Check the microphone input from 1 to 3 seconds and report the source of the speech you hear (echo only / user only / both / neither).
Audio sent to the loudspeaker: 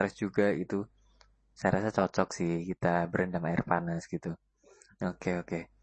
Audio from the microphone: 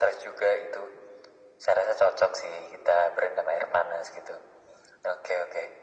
echo only